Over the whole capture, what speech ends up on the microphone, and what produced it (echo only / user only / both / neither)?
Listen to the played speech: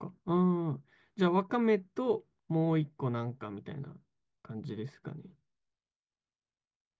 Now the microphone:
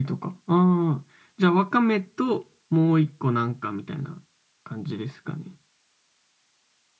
echo only